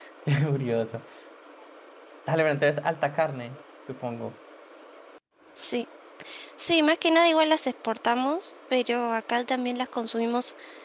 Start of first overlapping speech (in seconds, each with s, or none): none